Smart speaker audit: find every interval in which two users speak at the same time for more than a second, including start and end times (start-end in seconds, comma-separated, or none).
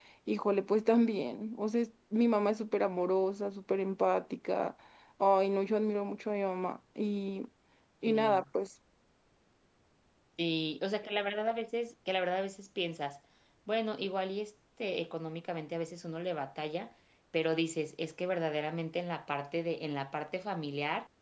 none